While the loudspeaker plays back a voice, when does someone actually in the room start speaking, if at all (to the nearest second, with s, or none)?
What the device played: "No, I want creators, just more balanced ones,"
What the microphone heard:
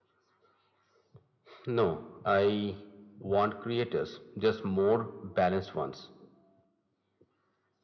none